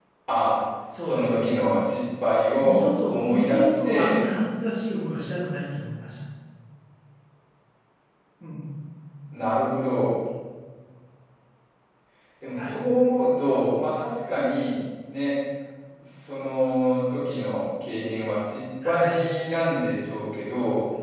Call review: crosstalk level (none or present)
present